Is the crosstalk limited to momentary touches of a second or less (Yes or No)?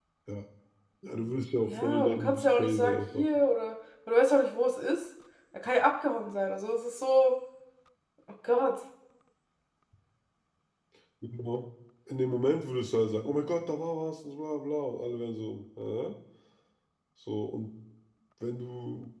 No